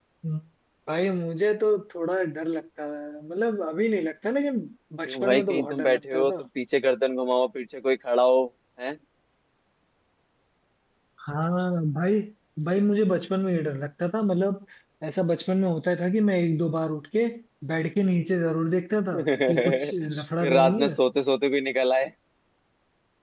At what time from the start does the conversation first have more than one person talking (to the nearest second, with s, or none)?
5 s